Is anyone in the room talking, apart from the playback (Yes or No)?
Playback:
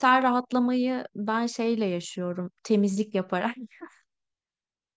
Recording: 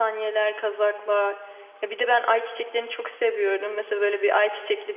Yes